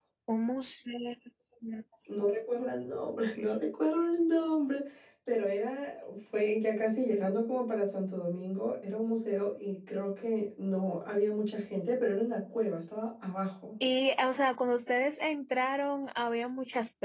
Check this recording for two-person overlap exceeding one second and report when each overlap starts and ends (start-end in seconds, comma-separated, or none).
none